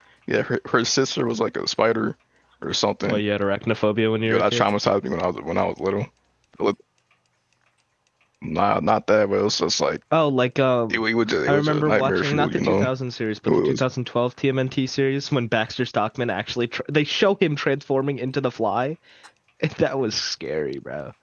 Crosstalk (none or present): present